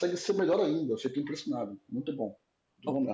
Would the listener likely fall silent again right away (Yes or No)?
No